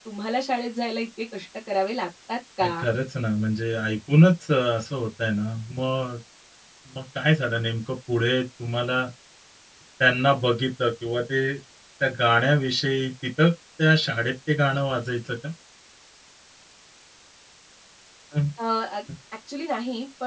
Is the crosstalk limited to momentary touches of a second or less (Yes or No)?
Yes